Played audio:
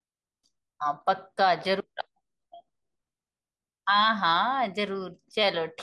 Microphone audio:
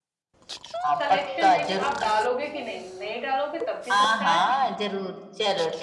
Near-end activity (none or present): present